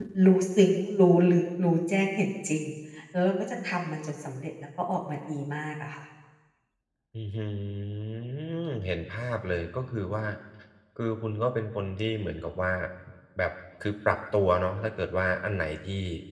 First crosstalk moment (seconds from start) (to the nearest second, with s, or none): none